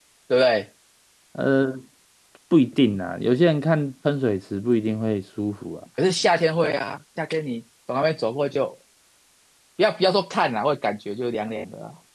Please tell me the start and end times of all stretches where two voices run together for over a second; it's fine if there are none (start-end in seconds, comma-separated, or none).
none